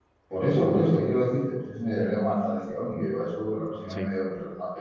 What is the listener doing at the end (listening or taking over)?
listening